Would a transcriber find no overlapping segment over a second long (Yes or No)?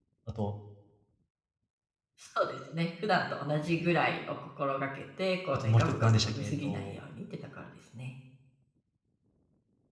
No